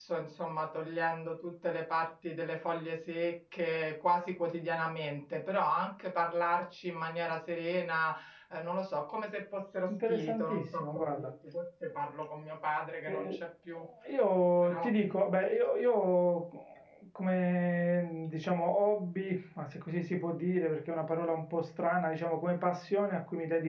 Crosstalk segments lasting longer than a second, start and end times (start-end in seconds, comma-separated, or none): 9.9-11.3